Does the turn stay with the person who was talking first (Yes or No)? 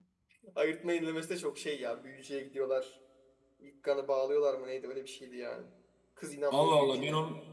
No